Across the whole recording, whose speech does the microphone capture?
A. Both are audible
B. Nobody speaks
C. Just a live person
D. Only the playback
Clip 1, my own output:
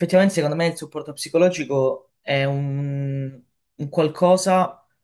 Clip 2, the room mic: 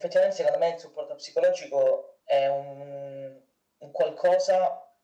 D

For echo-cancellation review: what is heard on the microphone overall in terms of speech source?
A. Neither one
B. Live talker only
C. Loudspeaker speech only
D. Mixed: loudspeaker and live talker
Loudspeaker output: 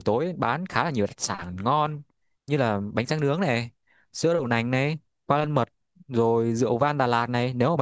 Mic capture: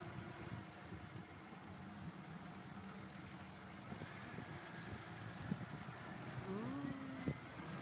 A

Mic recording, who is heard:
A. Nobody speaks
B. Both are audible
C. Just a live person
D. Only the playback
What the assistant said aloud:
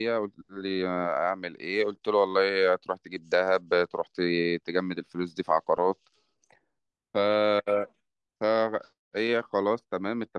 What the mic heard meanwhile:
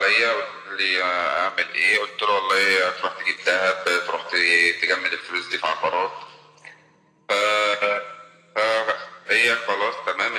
D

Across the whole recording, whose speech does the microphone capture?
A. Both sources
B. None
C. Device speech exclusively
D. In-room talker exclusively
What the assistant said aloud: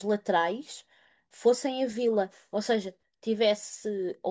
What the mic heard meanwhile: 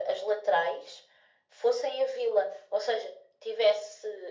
C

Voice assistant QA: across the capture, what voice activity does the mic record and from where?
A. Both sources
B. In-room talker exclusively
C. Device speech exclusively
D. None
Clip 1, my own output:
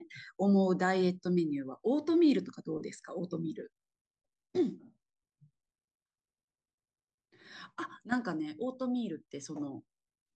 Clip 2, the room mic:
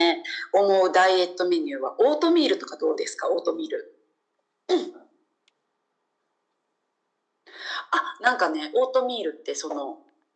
C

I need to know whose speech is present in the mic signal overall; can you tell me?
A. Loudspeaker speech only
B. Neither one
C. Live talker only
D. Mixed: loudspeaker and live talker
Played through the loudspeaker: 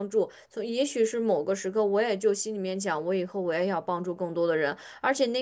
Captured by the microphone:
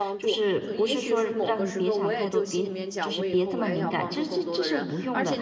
D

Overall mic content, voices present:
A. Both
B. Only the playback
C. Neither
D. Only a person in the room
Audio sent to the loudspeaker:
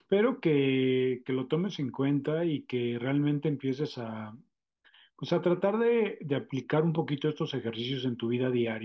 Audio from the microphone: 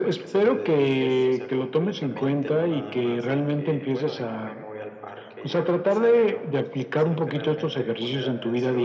A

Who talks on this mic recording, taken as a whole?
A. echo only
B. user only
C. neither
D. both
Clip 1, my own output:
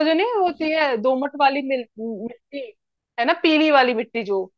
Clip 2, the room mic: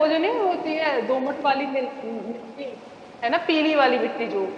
A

